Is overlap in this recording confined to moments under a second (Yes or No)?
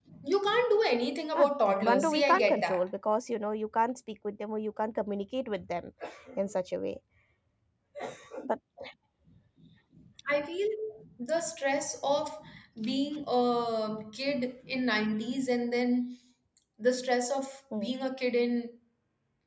No